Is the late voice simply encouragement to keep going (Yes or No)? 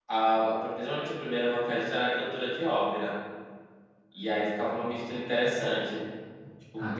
Yes